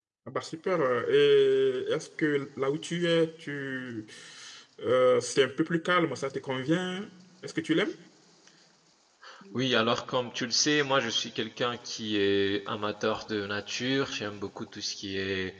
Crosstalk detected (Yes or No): No